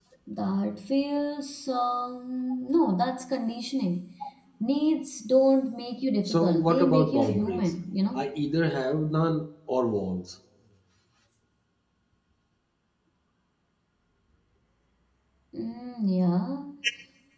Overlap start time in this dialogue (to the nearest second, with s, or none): 6 s